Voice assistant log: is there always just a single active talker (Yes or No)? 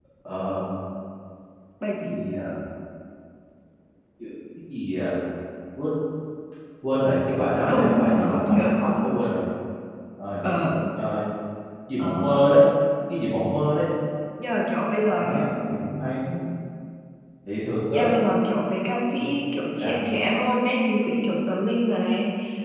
No